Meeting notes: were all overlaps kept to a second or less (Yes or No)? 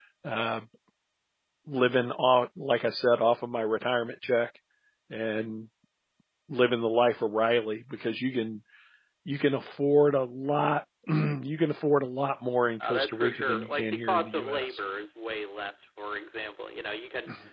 No